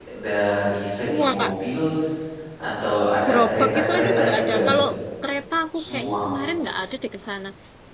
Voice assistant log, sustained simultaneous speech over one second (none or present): present